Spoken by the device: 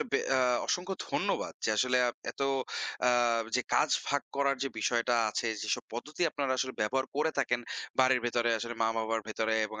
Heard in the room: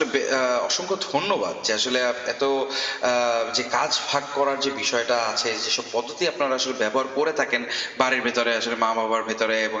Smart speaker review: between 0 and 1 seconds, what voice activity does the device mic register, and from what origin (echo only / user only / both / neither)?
echo only